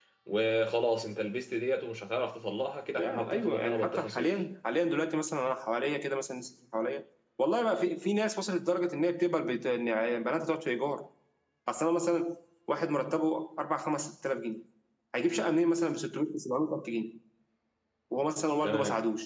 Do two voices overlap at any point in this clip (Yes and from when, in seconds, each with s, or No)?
Yes, from 3.0 s